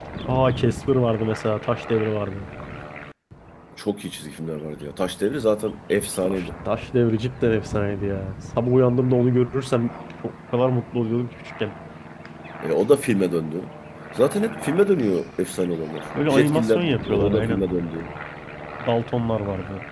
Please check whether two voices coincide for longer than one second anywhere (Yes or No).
Yes